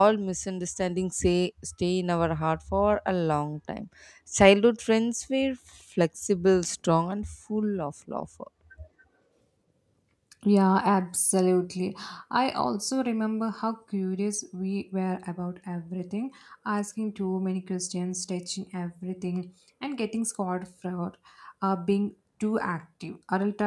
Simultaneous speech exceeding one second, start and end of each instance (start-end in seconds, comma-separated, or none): none